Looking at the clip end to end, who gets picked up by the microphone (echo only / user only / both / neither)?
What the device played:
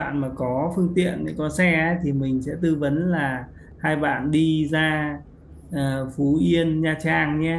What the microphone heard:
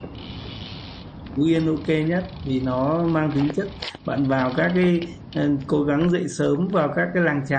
user only